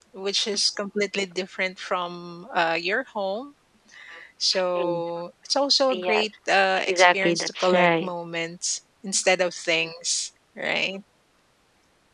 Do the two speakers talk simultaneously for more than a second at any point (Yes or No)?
Yes